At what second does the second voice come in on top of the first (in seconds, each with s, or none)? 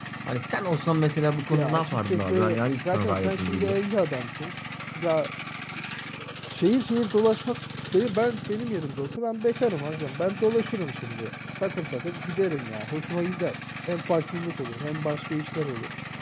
1.5 s